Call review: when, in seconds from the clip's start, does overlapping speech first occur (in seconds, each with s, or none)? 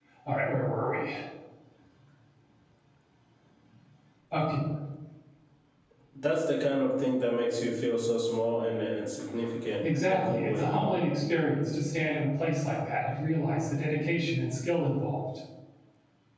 9.8 s